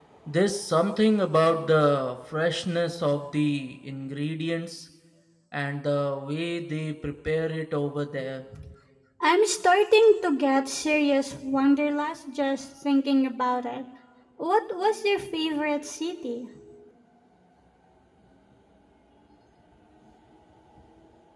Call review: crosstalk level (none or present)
none